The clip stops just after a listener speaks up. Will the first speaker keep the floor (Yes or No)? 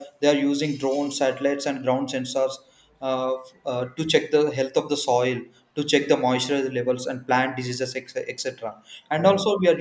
Yes